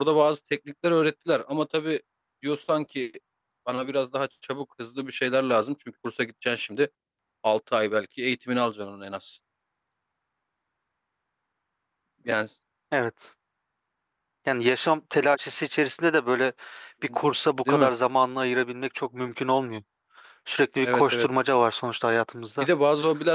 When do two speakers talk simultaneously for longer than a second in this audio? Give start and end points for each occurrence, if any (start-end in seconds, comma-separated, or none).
none